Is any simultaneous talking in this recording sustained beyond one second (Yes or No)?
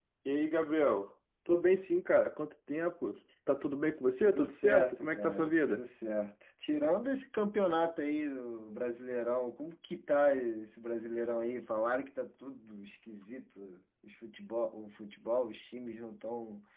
Yes